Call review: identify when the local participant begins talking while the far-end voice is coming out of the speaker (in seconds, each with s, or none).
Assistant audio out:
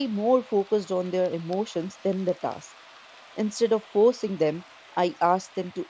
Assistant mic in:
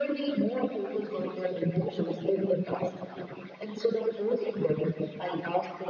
none